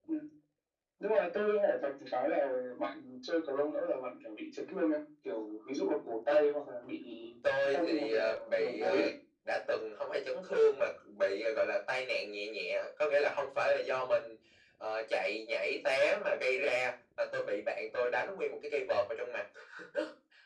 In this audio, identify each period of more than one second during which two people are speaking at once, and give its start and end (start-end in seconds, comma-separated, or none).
7.7-9.1